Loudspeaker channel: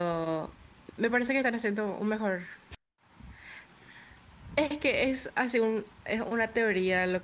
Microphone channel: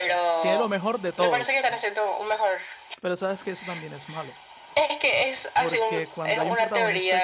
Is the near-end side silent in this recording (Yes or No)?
No